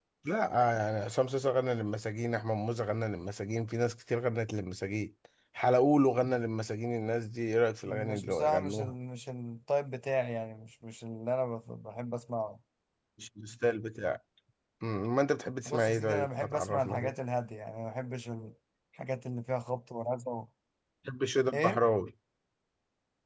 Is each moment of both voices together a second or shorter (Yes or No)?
No